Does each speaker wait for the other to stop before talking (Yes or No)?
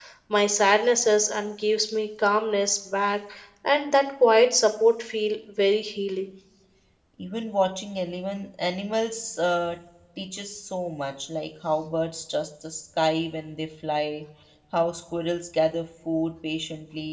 Yes